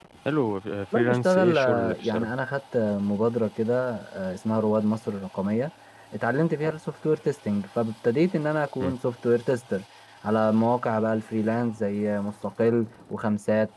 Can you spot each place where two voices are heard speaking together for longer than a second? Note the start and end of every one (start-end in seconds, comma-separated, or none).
1.0-2.3